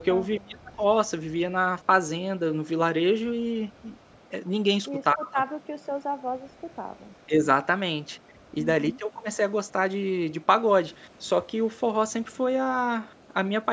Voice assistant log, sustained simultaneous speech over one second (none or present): none